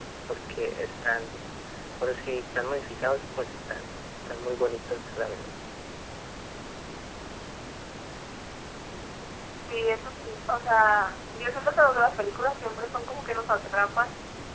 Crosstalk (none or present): none